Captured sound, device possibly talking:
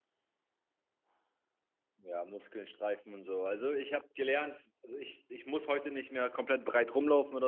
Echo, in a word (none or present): none